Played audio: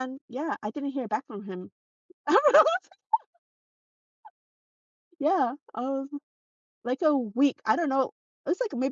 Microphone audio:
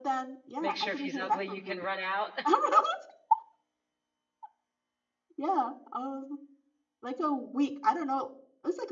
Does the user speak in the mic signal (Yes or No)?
Yes